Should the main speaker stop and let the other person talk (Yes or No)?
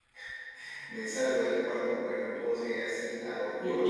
Yes